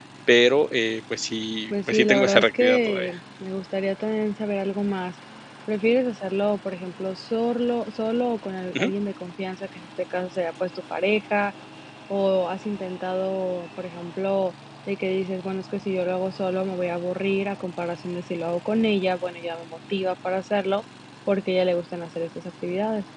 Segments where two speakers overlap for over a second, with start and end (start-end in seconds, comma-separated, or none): 1.7-3.1